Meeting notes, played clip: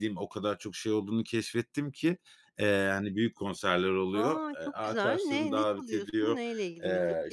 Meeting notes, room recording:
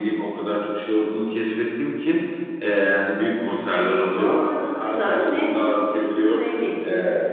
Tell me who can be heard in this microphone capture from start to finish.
echo only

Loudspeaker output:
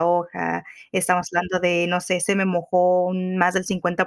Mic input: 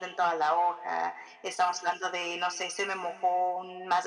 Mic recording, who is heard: echo only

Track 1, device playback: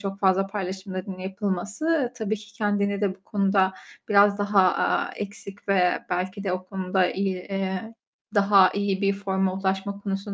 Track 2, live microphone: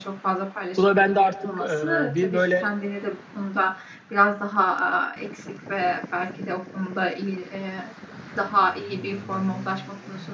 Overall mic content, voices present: both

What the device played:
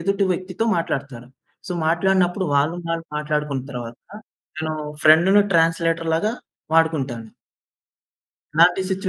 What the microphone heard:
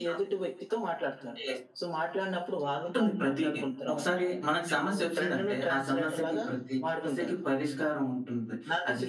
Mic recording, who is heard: both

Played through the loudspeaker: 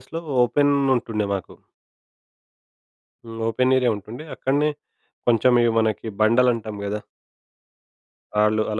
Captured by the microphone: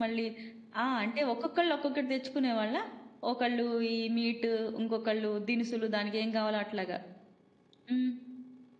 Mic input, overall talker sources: user only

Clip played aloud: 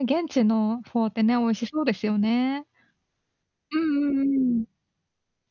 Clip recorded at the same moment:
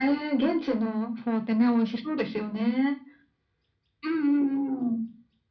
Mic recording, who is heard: echo only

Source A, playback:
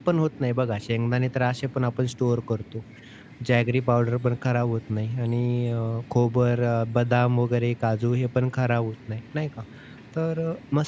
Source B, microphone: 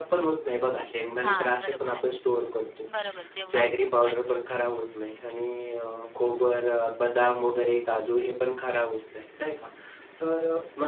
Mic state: both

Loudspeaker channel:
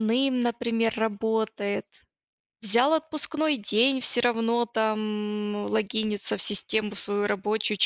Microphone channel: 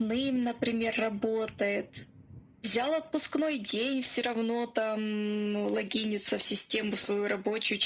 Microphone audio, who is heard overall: echo only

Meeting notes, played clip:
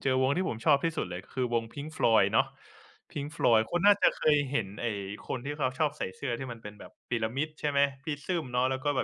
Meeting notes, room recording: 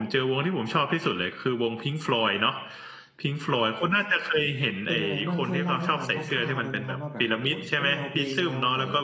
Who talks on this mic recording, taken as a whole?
both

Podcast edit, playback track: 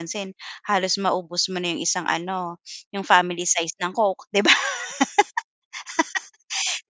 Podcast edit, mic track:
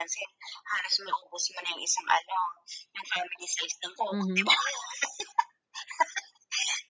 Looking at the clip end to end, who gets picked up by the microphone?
both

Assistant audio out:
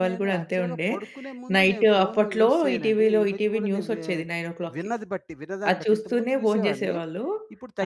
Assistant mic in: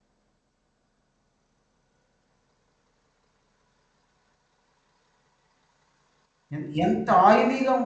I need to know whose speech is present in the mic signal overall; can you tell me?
user only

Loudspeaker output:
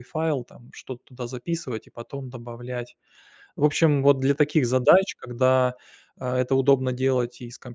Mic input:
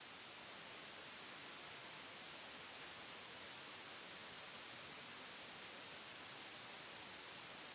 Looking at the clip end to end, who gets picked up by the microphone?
neither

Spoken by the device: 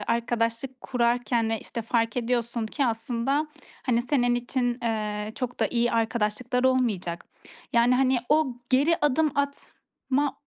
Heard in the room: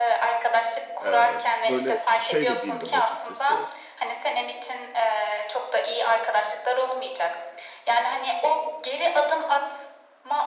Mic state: both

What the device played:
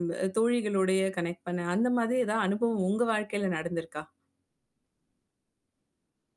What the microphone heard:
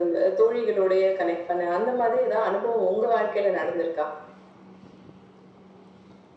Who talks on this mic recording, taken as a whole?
echo only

